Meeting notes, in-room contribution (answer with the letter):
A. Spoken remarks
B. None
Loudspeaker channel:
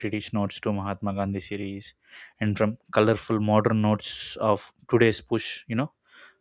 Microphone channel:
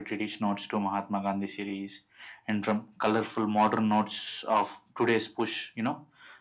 B